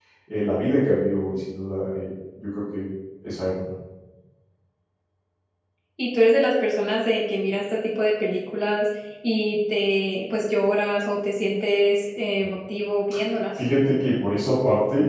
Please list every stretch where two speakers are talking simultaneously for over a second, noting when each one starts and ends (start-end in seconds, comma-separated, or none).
none